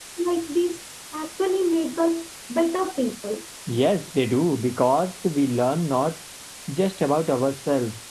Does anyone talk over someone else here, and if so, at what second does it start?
none

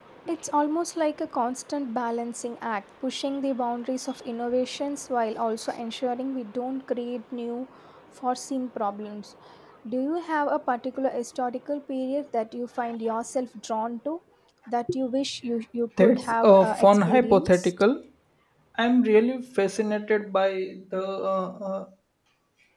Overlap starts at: 16.0 s

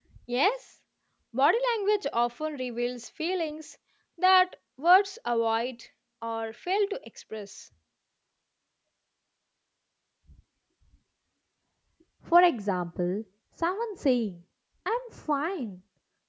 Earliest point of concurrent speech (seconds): none

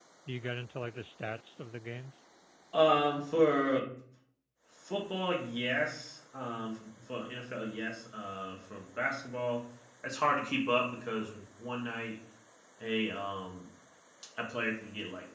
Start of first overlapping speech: none

